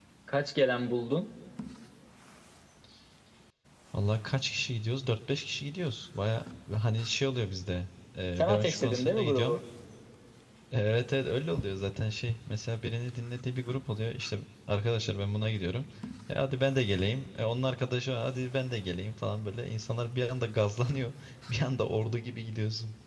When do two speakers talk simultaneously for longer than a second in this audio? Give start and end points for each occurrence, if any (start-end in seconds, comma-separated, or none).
8.4-9.6